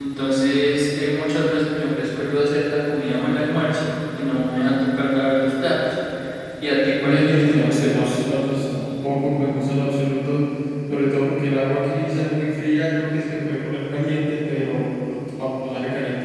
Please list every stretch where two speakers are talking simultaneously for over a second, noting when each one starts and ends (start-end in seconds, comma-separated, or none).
7.0-8.2